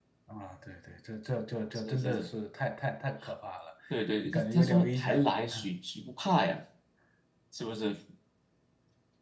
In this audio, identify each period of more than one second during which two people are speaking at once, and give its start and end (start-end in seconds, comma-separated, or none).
4.2-5.6